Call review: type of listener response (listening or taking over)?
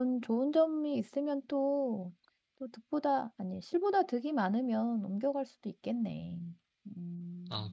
taking over